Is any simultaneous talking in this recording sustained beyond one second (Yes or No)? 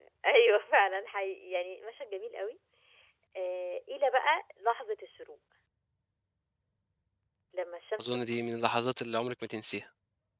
No